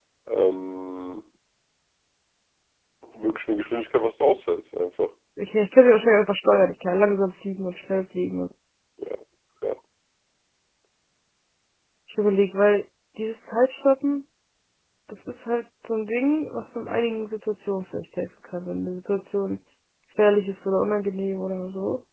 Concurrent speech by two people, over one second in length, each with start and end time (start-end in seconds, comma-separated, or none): none